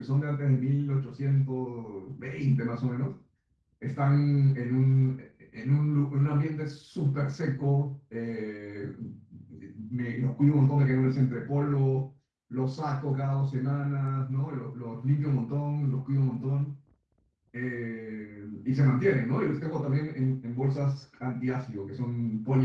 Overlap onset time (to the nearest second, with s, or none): none